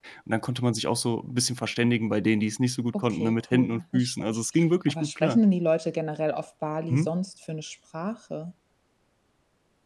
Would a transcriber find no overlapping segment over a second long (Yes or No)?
No